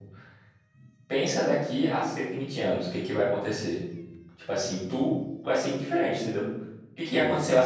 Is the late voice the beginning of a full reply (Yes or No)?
No